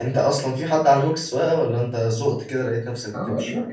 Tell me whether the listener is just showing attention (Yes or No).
No